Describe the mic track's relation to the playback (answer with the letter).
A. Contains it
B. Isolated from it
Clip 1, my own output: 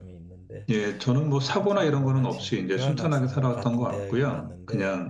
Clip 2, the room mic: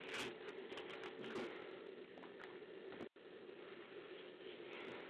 B